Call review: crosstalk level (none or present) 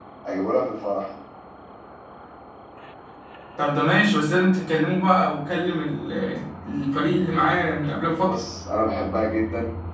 none